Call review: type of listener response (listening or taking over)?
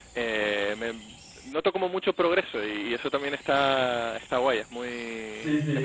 taking over